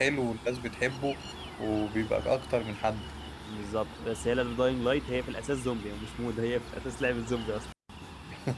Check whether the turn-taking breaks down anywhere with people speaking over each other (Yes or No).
No